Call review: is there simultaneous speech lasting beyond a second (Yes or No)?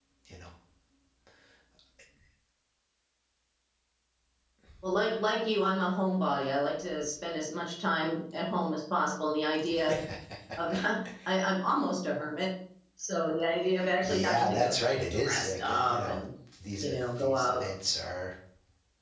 Yes